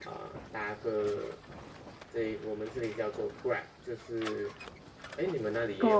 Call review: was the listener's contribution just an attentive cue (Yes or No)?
No